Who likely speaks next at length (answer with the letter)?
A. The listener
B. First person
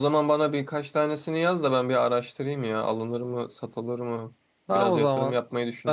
A